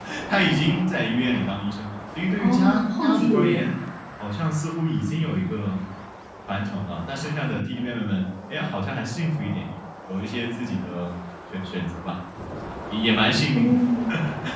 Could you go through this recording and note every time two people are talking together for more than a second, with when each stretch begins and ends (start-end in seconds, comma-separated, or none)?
2.4-3.7